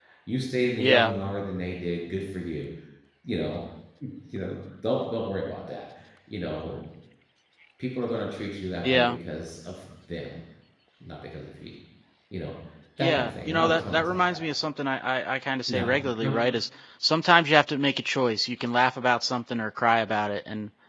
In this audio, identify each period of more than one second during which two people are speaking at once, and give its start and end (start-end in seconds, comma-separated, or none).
13.0-14.4